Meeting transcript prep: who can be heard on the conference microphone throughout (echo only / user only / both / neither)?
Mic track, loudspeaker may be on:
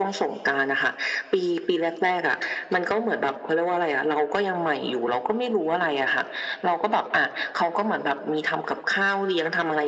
echo only